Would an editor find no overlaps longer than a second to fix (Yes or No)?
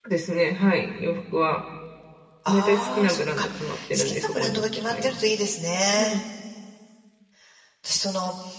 No